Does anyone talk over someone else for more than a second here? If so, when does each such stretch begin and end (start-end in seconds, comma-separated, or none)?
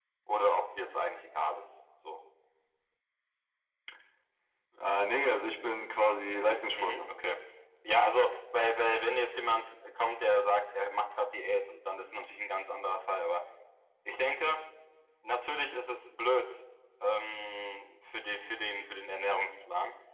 none